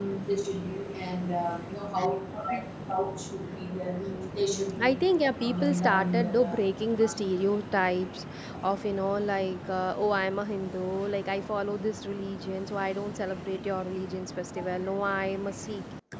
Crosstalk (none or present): present